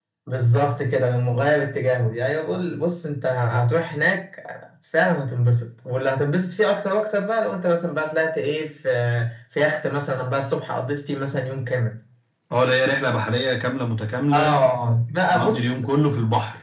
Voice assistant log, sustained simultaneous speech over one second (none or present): none